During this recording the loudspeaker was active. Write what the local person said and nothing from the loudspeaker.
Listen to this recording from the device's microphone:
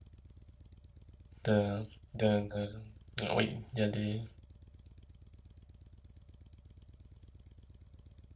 de, de- de- de- oui, il y a des,

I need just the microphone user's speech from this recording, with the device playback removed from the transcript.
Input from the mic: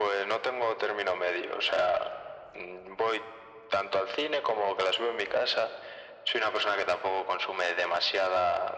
none

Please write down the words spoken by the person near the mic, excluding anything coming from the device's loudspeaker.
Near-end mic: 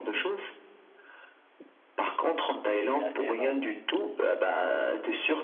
il est, il est assez énorme, ouais.

